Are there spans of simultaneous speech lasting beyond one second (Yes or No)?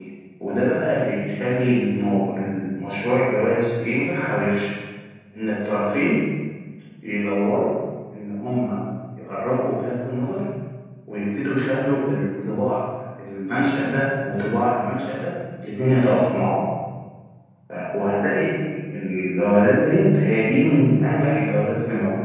No